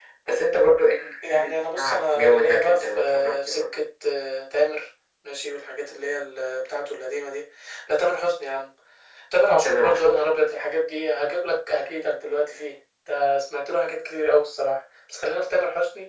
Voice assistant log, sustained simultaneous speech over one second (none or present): present